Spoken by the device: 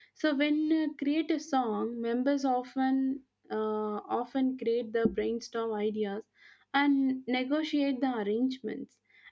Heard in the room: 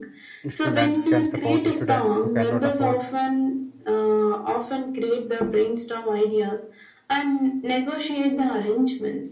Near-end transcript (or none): instruments can support students who cannot afford